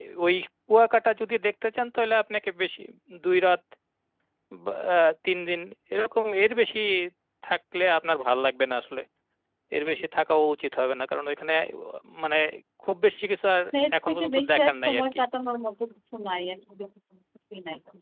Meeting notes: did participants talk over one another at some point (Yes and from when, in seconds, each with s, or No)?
Yes, from 13.7 s